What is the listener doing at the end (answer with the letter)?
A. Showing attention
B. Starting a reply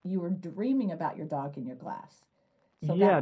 B